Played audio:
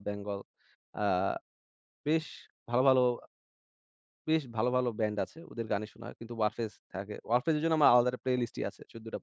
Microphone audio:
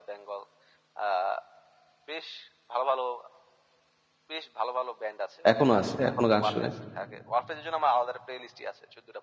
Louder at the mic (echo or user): user